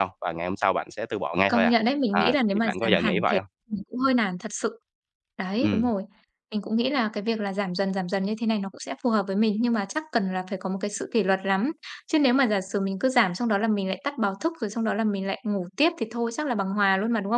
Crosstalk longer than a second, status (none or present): present